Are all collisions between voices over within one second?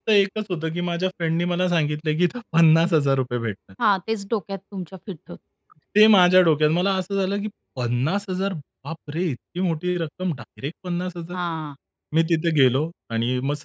Yes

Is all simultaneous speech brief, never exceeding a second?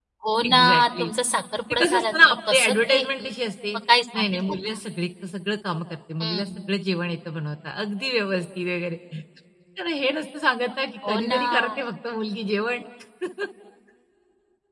No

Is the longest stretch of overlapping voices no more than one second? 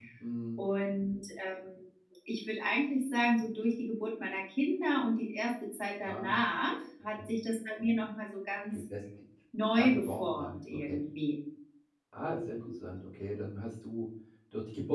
No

